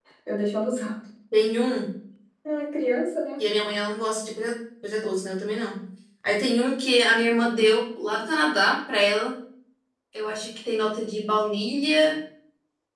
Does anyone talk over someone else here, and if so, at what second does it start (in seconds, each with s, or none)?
none